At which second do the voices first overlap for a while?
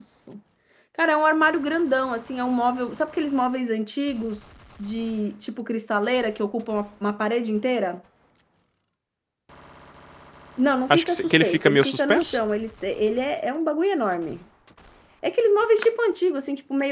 10.9 s

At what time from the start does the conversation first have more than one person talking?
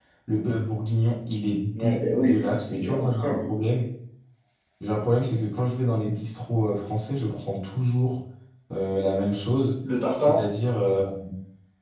1.8 s

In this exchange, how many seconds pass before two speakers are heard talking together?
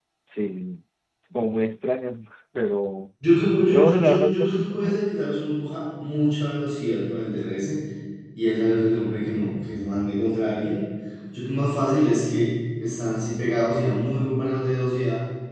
3.7 s

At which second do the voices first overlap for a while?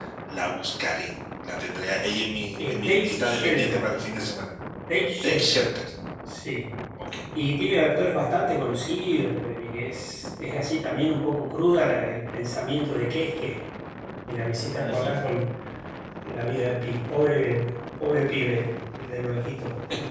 2.6 s

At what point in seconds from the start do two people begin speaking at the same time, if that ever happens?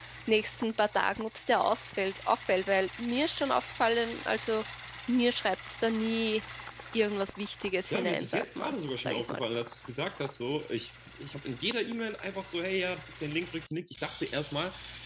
7.9 s

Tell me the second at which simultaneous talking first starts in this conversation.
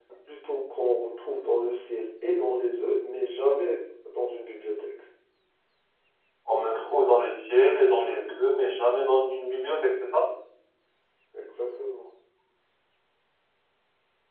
none

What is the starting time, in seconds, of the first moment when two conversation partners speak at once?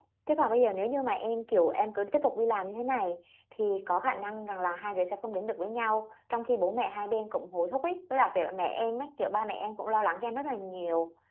none

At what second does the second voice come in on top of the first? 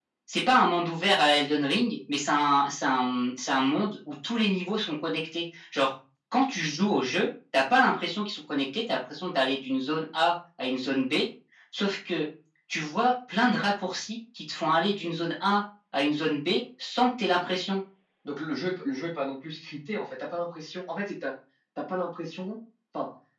none

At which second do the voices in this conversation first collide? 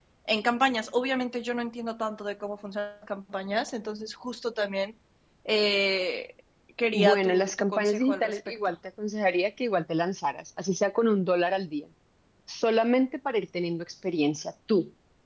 6.9 s

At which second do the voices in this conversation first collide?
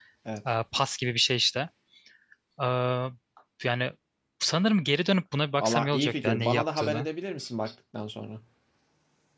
5.6 s

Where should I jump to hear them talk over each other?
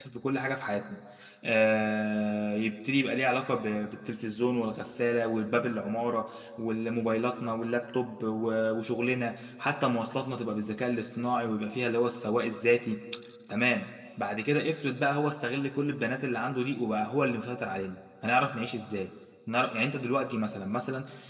none

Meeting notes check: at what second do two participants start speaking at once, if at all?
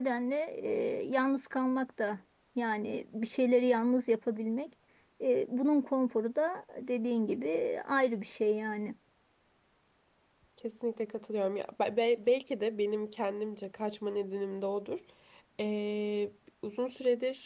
none

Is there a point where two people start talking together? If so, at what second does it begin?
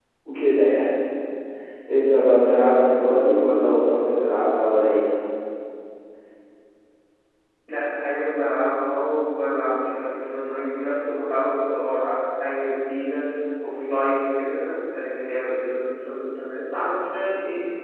none

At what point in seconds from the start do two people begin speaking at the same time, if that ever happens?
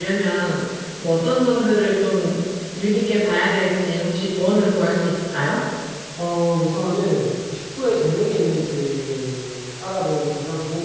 none

